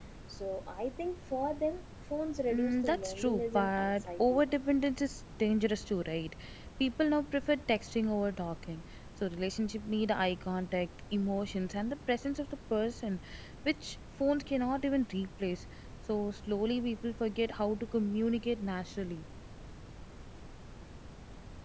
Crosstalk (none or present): present